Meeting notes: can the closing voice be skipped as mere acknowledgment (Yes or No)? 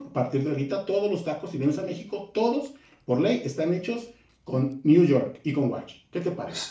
No